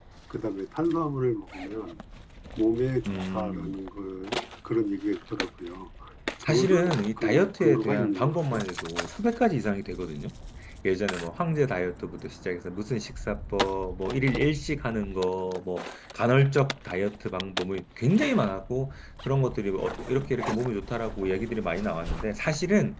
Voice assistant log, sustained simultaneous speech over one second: present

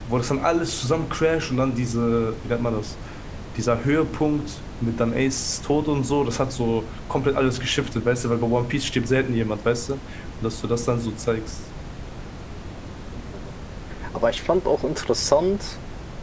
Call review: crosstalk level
none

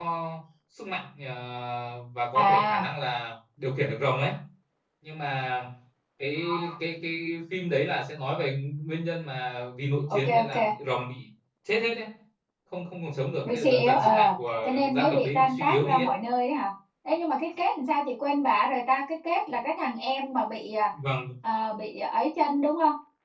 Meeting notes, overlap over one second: present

